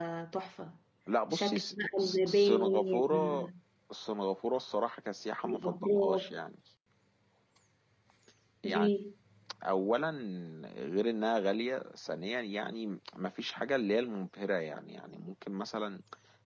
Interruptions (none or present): present